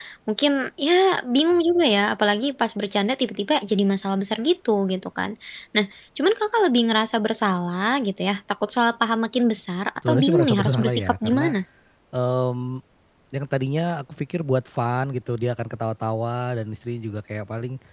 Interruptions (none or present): present